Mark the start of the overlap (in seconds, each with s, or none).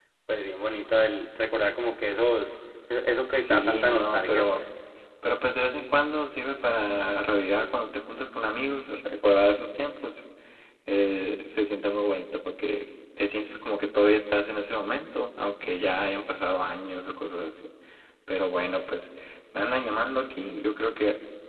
3.4 s